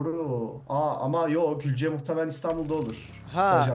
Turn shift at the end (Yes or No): Yes